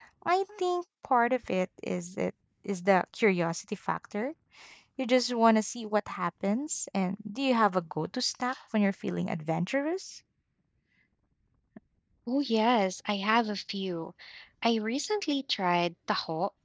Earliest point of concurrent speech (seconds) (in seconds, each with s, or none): none